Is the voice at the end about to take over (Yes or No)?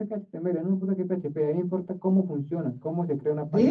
Yes